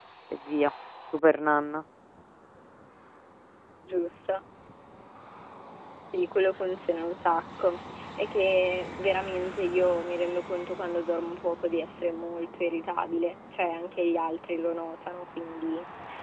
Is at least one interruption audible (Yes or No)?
No